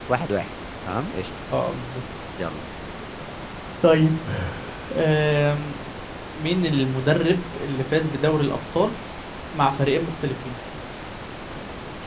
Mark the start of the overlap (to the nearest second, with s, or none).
none